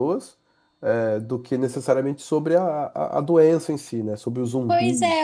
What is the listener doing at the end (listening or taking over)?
taking over